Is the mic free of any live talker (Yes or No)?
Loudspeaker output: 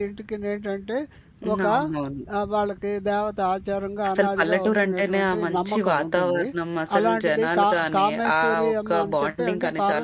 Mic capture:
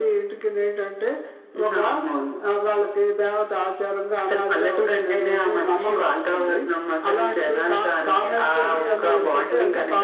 No